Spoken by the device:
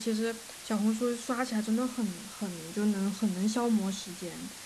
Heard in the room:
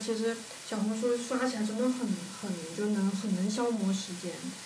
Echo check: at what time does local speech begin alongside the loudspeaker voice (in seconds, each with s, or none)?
none